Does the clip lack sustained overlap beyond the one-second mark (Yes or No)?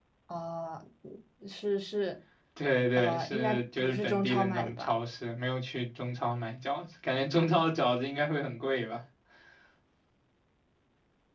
No